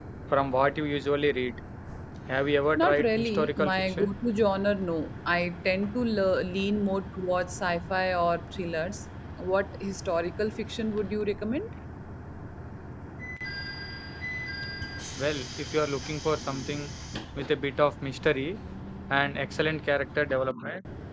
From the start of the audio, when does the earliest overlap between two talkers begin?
2.8 s

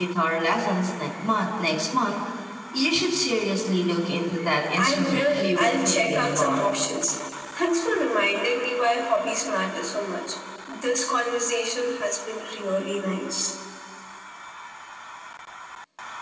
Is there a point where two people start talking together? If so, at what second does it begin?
4.7 s

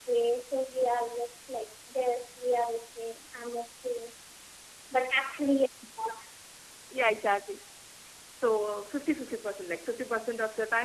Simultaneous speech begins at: none

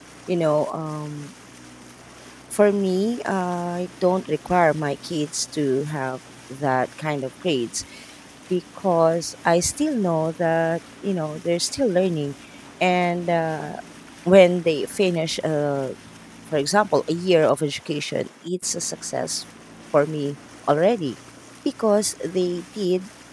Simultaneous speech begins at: none

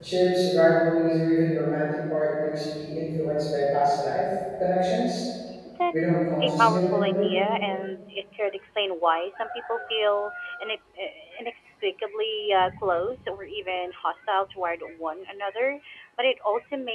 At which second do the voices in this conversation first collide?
5.9 s

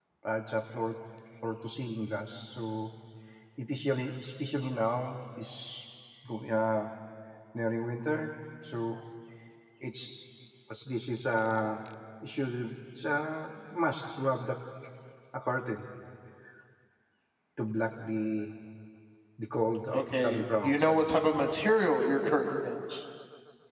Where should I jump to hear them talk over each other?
19.9 s

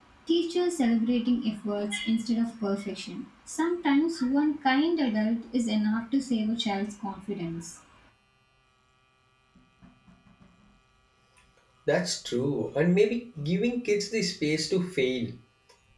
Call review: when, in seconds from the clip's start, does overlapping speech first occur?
none

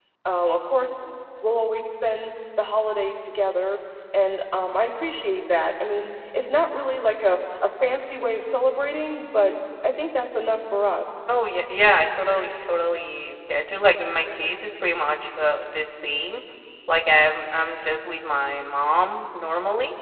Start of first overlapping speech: none

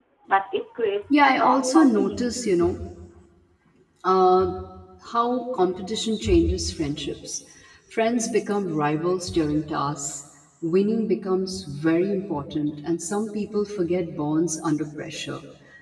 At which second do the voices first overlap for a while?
1.1 s

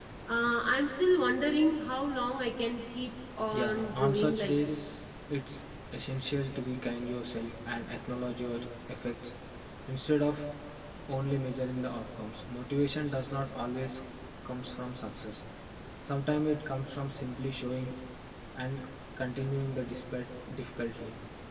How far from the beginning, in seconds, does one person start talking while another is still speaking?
3.5 s

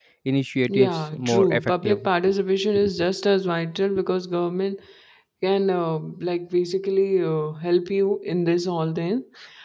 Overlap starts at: 0.7 s

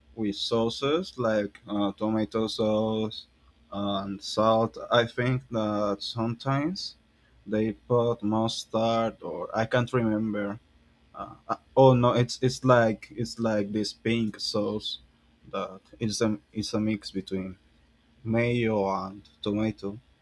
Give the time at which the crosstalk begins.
none

